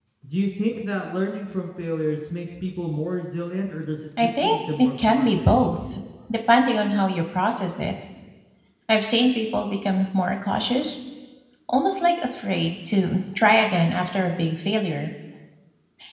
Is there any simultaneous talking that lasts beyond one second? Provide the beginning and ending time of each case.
4.2-5.5

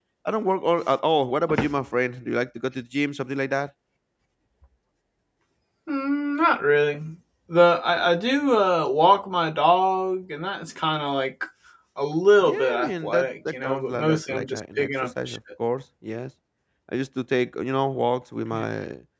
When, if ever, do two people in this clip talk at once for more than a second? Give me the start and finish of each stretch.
12.4-15.4

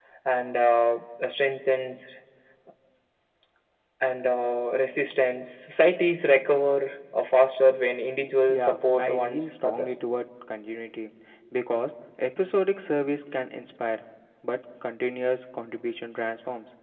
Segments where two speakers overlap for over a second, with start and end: 8.5-9.9

